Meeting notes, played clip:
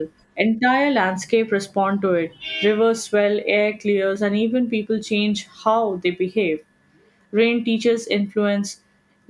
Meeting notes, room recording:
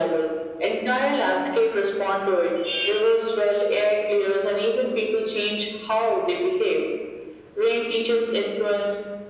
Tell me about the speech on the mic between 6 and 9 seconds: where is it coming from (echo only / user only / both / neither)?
echo only